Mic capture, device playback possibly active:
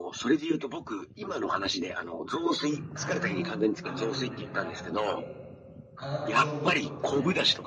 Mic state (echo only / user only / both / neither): both